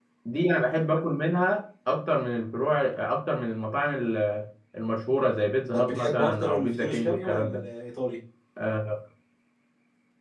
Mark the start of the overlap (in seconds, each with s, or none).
5.7 s